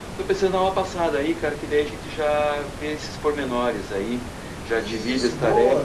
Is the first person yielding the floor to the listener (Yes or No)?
Yes